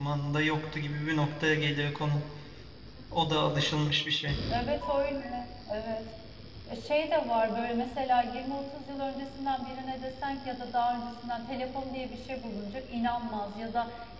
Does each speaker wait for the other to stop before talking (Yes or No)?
Yes